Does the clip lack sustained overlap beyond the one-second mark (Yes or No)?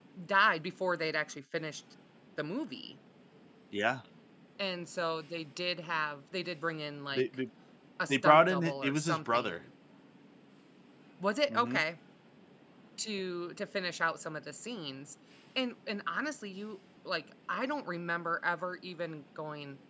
No